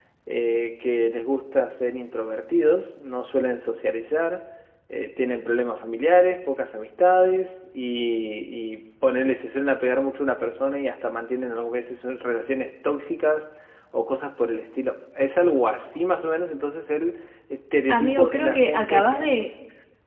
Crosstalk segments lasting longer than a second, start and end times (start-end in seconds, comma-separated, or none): 17.9-19.2